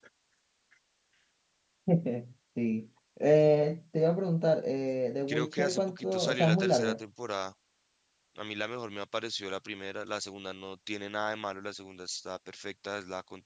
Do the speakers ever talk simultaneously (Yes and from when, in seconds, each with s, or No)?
Yes, from 5.3 s